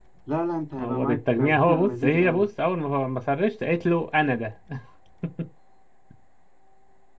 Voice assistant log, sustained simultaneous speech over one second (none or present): present